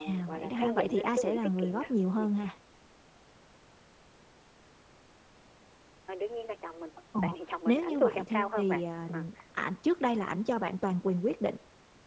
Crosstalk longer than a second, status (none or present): present